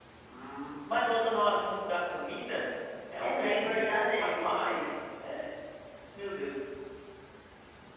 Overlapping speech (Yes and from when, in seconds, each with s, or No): Yes, from 3.2 s